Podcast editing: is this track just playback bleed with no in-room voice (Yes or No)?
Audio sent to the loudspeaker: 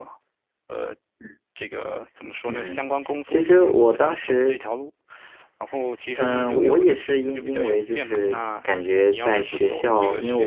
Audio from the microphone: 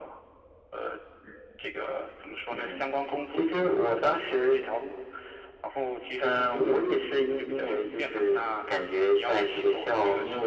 Yes